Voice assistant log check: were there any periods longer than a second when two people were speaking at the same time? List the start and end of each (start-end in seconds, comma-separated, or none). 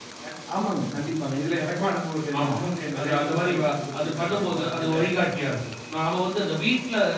3.0-4.9